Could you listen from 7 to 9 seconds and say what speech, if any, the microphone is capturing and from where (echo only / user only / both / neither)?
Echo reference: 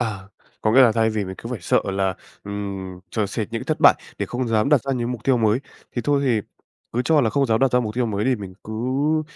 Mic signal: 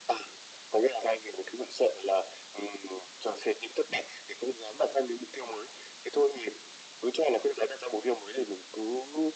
echo only